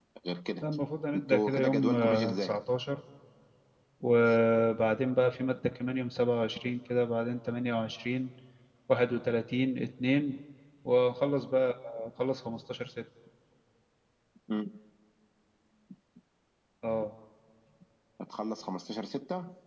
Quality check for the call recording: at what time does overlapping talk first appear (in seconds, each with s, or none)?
1.1 s